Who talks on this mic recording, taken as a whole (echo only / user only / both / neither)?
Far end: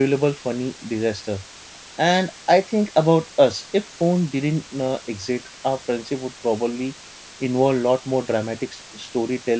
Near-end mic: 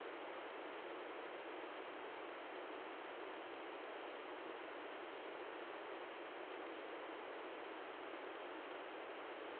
neither